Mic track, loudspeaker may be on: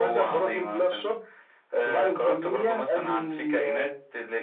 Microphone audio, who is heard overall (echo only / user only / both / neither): echo only